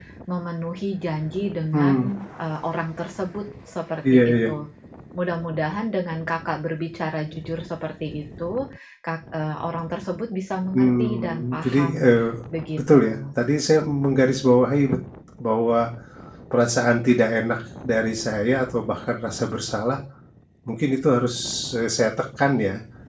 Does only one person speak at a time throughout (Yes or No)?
No